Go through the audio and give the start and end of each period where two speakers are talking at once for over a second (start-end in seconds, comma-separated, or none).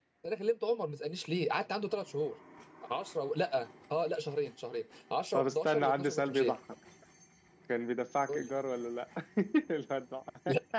5.3-6.6